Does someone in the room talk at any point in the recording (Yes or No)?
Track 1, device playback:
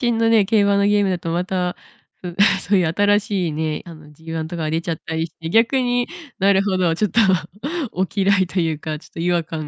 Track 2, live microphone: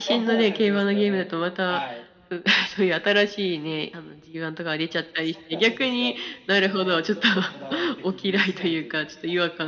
Yes